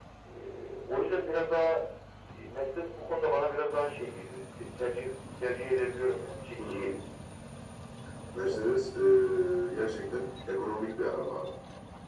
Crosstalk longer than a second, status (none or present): none